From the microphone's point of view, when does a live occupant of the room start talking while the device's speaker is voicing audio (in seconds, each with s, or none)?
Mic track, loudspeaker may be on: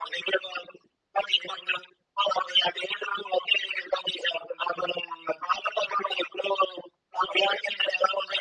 none